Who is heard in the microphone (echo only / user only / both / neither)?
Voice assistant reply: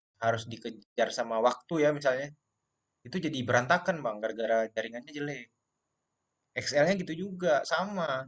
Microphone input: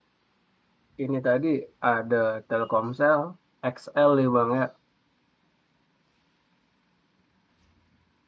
user only